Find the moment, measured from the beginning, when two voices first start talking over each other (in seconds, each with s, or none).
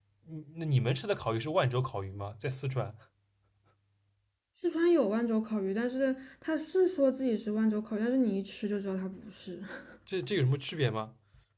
none